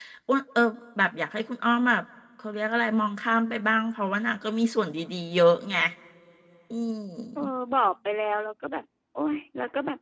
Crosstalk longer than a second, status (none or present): none